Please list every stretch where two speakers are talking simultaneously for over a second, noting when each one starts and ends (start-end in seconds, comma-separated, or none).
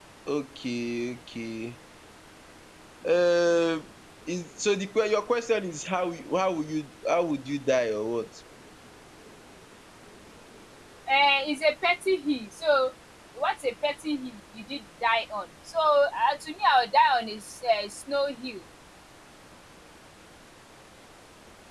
none